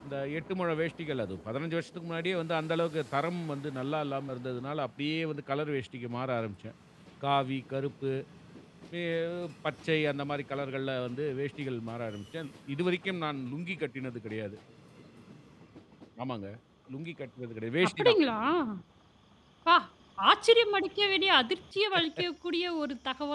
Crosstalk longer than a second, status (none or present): none